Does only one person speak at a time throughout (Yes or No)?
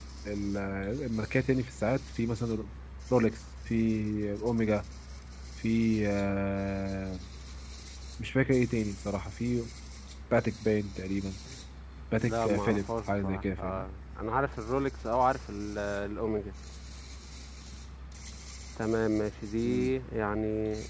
No